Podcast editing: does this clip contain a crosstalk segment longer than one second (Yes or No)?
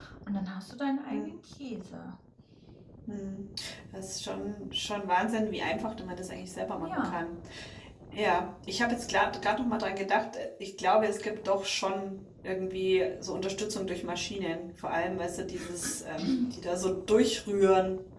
No